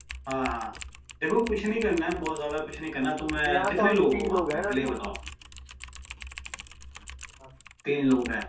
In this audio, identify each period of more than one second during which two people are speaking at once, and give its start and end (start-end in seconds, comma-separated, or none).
3.5-4.9